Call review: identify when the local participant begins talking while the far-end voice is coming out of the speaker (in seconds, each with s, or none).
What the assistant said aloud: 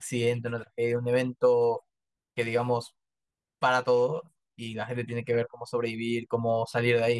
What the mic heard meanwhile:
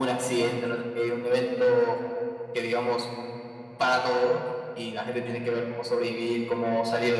none